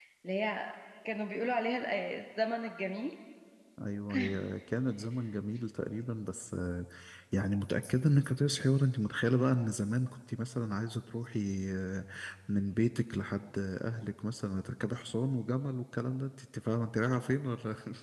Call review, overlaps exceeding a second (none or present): none